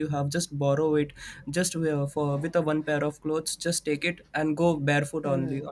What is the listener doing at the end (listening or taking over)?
taking over